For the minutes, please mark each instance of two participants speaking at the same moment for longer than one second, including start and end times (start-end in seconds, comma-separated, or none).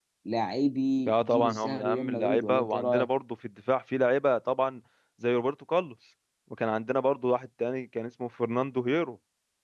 1.1-3.1